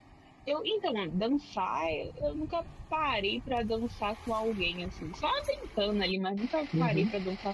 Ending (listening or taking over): listening